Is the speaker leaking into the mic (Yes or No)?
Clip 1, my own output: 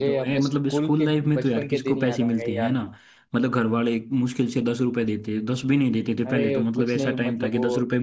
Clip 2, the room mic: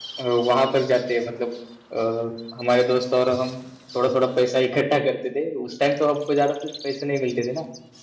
No